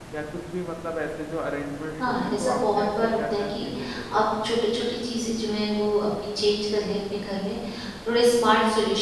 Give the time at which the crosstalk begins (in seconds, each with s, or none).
1.9 s